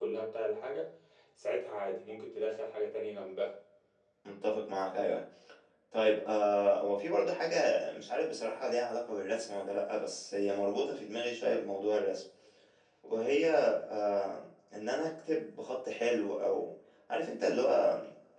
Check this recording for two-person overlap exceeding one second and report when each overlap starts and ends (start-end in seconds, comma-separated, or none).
none